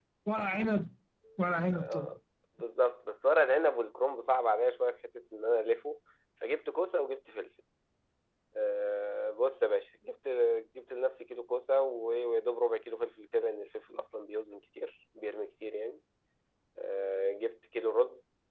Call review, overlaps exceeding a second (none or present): none